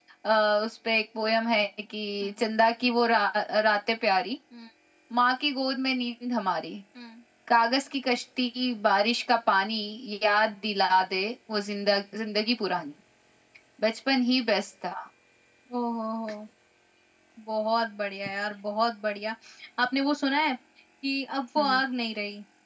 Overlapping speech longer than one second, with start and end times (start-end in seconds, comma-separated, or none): none